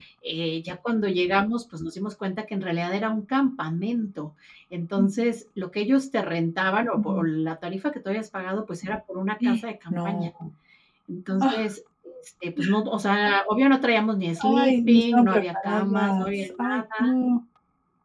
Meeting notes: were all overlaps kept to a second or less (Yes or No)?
No